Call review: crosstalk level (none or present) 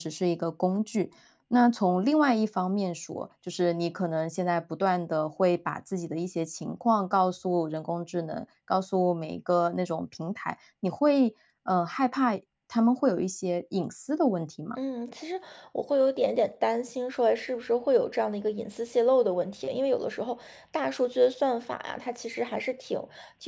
none